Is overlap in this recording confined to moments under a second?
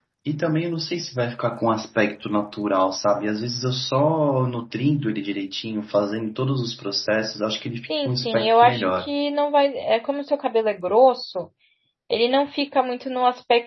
No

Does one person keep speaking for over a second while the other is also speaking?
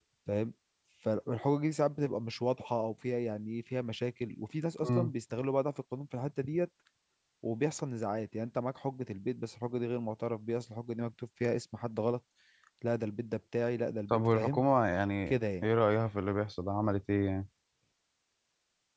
No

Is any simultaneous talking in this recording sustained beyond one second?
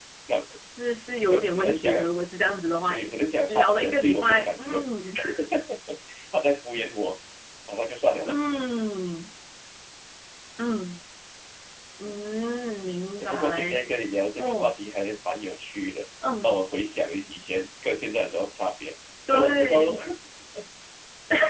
Yes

